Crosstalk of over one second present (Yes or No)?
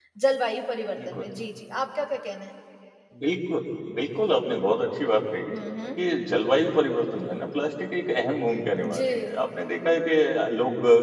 No